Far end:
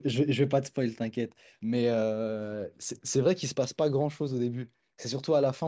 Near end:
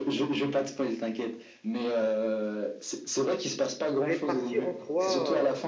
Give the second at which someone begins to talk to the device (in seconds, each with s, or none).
4.0 s